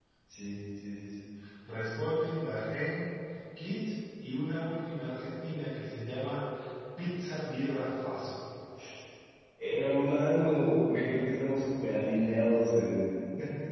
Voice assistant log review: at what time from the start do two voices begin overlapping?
none

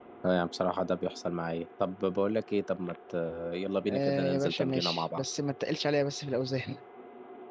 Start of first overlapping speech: 3.9 s

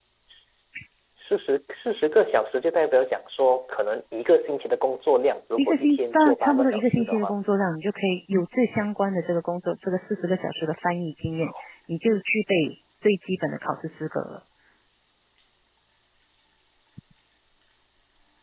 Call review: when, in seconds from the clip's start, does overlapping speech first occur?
5.6 s

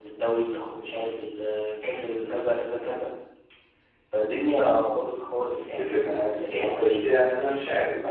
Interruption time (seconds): 5.6 s

